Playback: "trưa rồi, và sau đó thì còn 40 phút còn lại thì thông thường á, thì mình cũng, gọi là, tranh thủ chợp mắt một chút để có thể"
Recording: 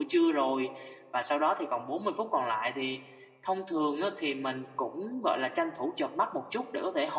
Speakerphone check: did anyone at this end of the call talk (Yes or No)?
No